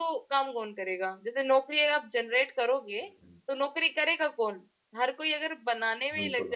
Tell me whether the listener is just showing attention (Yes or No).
Yes